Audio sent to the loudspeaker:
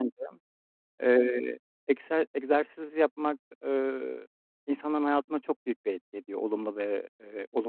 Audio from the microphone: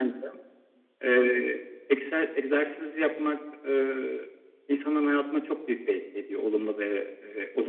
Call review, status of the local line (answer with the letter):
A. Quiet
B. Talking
A